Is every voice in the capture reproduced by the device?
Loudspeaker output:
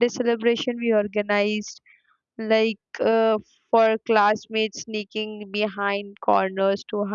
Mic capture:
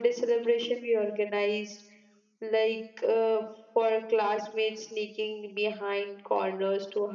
Yes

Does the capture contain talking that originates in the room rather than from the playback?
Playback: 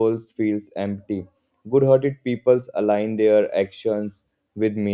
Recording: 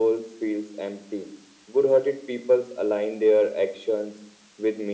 No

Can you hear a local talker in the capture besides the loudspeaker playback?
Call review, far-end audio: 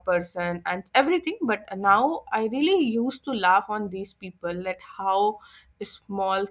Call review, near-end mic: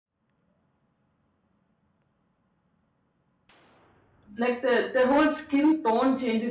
Yes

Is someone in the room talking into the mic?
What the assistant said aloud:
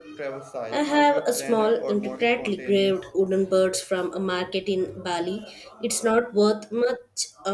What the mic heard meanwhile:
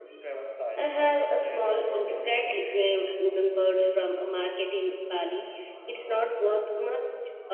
No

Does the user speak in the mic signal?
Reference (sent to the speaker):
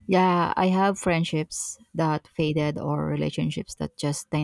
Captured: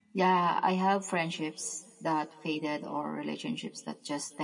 No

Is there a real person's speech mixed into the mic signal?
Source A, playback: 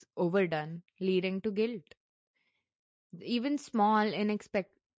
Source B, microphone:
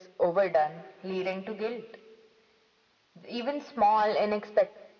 No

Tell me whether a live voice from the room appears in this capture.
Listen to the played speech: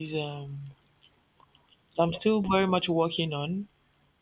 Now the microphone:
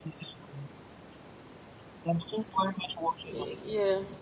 Yes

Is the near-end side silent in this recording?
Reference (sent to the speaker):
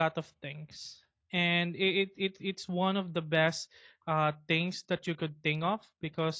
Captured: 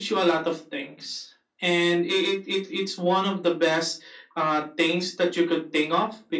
Yes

